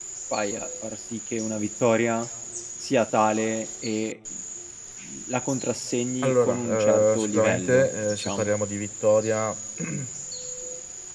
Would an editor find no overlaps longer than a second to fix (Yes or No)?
No